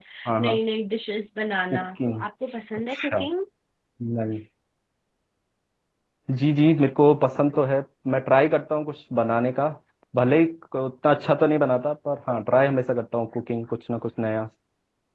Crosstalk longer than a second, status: none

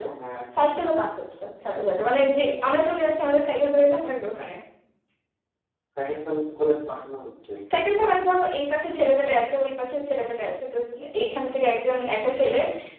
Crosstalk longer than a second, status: none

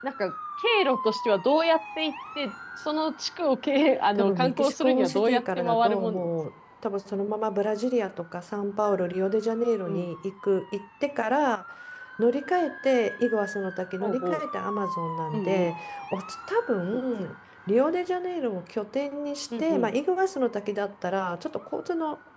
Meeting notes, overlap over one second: present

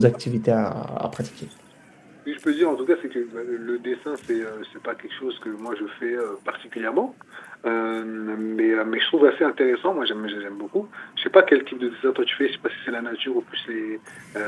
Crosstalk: none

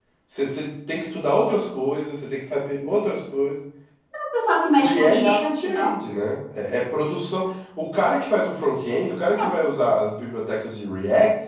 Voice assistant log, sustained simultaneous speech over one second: present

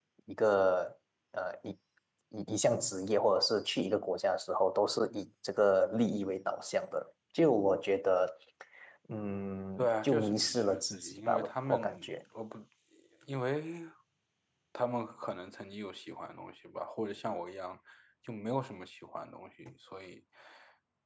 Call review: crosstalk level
present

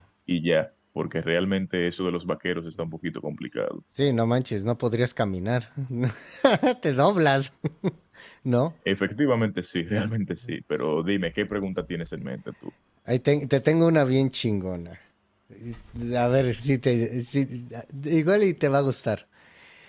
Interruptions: none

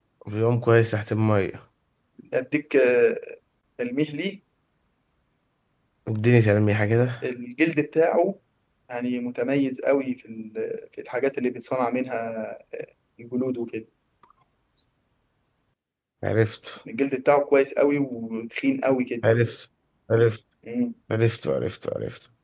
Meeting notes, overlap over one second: none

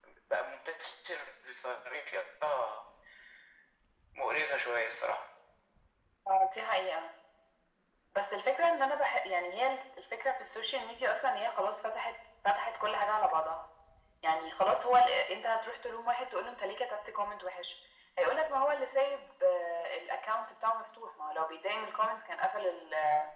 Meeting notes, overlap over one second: none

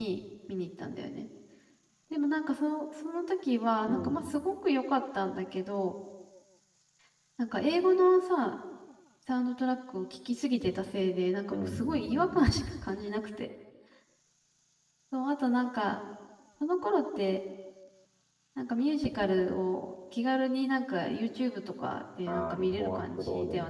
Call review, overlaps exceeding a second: present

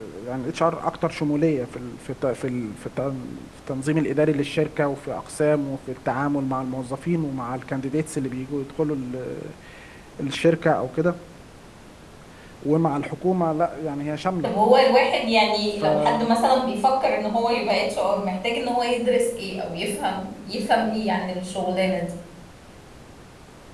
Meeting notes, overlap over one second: none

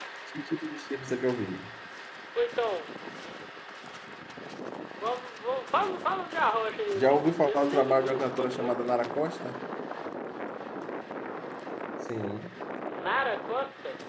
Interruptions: present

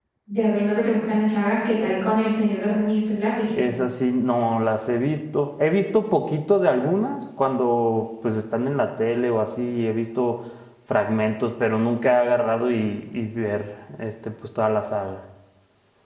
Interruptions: none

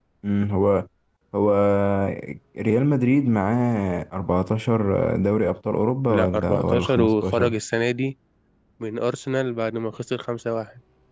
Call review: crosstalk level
present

